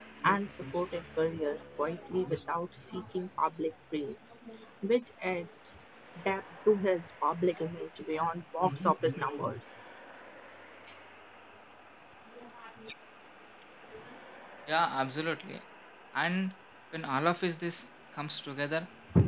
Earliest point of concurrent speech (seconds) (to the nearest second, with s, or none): none